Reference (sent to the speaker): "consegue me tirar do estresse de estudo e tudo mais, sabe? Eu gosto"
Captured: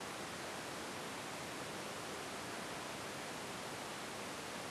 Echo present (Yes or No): No